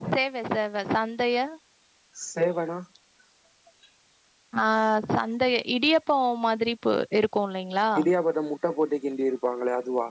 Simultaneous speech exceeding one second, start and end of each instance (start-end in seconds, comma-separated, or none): none